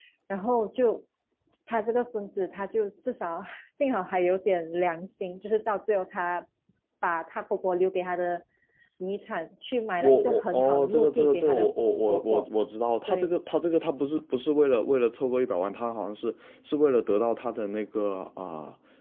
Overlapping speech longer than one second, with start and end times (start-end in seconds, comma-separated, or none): 10.0-11.7